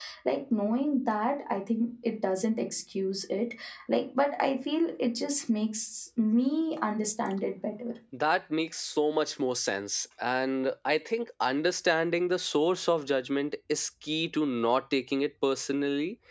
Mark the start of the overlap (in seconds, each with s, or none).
none